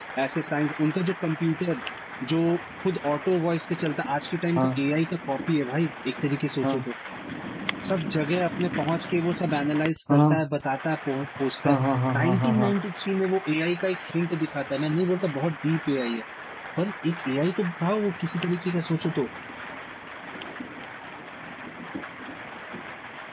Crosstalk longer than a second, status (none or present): none